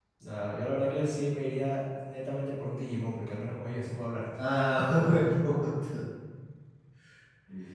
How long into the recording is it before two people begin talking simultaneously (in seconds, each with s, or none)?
none